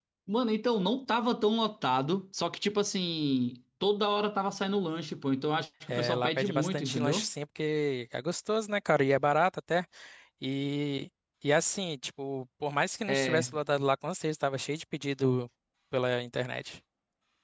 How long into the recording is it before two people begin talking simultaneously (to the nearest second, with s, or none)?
6 s